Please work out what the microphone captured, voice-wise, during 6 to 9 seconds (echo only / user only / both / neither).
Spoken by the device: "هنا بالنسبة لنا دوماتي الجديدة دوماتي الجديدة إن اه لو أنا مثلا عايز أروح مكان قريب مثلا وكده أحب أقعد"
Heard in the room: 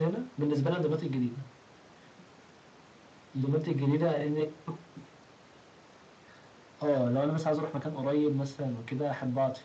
echo only